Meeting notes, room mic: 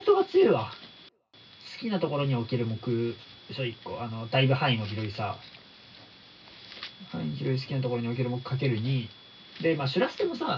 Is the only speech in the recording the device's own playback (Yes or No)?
No